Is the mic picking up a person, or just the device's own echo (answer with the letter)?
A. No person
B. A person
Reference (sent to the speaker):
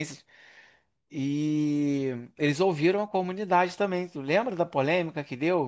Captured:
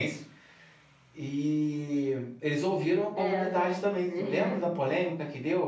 B